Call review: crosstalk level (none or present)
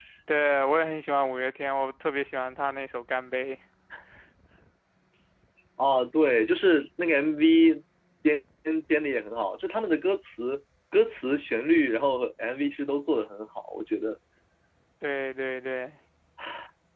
none